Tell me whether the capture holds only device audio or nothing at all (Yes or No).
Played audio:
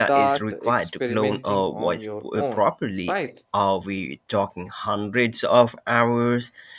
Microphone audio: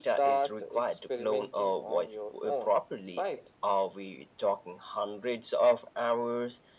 Yes